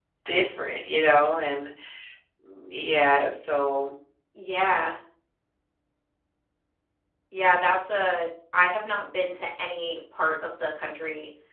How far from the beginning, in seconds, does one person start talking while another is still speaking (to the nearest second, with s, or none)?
none